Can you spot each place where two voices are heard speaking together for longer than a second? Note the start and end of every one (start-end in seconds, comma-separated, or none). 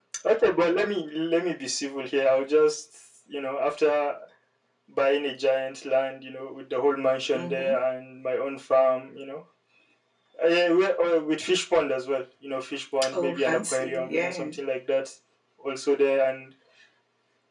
13.1-14.4